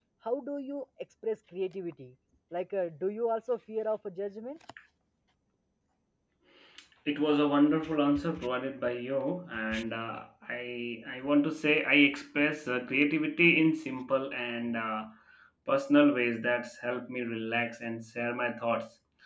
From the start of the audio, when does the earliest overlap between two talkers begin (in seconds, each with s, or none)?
none